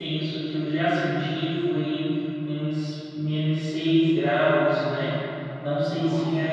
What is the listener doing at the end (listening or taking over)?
listening